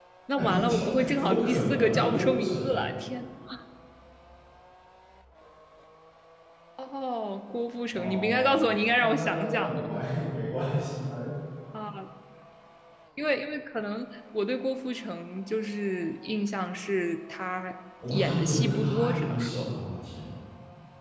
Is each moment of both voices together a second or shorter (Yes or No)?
No